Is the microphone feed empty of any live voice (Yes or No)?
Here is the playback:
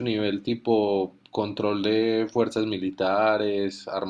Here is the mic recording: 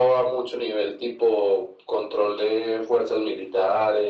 Yes